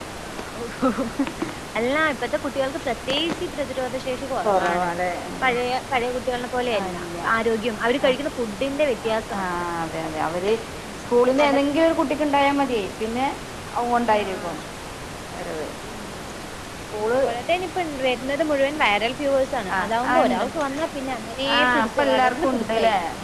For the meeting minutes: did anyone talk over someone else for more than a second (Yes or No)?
Yes